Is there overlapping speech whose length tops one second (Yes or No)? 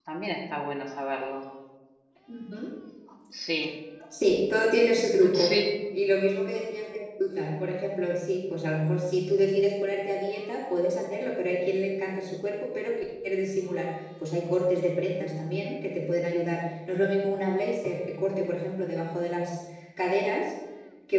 No